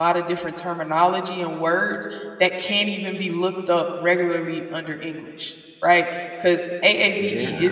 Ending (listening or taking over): listening